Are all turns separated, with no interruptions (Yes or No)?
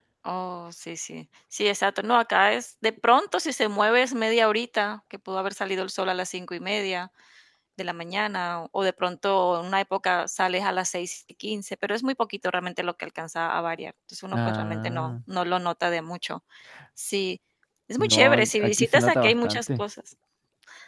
No